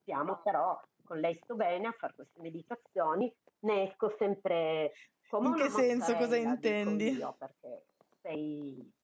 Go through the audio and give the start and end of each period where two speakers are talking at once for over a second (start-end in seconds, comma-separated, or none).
5.4-7.2